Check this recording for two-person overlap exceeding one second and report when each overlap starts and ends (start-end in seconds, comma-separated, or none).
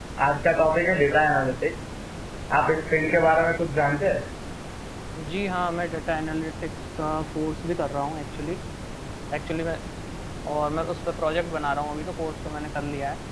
none